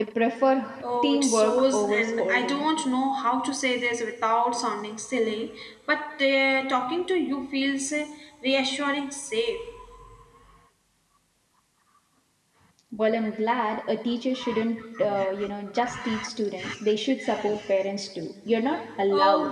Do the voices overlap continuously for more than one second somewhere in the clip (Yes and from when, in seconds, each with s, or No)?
Yes, from 1.0 s